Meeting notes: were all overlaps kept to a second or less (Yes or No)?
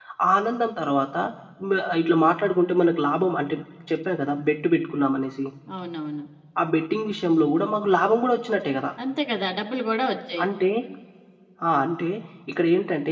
Yes